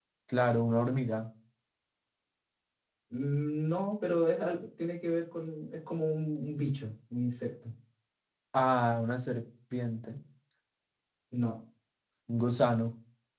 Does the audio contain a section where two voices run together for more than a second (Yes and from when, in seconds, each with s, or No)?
No